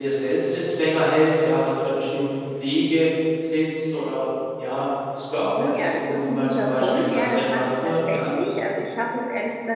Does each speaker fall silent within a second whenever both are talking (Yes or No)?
No